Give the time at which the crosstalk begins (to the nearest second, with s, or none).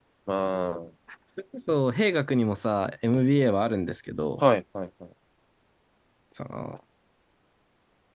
none